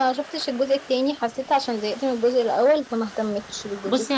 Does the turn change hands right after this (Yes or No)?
Yes